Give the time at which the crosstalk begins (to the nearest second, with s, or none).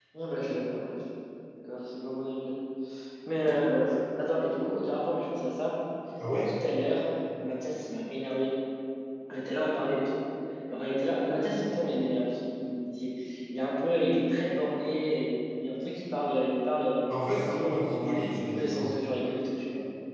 18 s